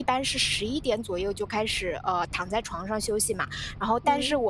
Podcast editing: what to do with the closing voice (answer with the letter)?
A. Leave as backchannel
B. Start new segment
A